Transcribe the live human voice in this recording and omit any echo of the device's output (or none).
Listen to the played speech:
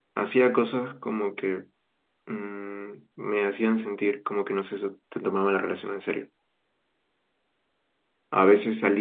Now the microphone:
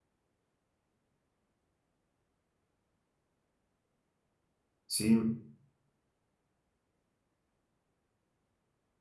Sí,